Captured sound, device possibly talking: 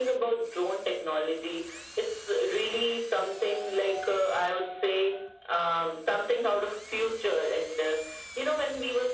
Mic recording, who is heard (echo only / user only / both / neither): echo only